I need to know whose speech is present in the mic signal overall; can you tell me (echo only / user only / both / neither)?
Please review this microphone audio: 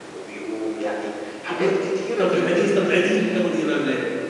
both